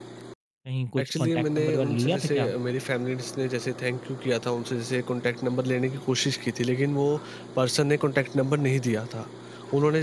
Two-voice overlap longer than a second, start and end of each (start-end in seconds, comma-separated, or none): 1.0-2.5